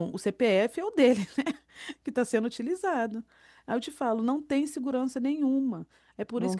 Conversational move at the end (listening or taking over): listening